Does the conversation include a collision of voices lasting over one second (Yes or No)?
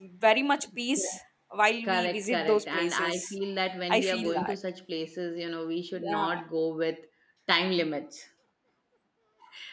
Yes